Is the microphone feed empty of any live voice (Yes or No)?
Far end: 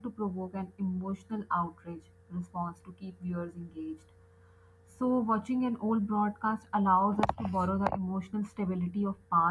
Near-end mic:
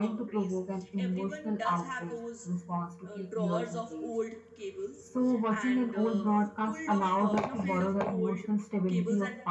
No